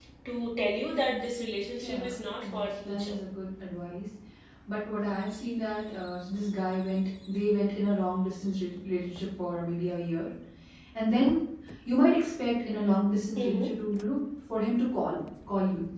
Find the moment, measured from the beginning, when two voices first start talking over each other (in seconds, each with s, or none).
1.7 s